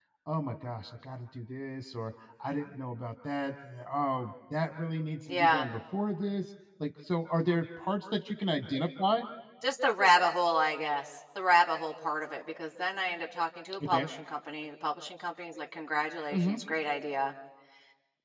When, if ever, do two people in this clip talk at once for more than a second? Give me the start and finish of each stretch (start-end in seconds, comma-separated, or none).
none